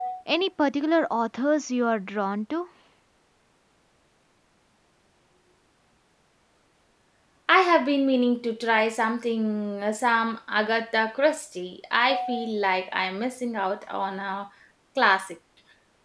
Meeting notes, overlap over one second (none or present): none